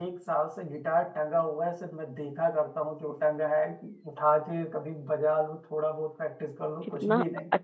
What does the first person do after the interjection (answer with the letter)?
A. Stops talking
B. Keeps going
A